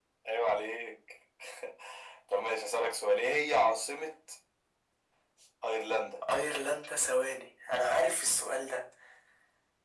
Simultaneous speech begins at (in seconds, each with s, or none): none